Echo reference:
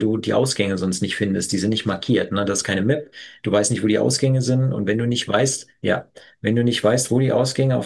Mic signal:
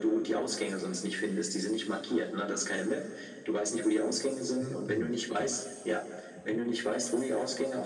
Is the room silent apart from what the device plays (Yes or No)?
No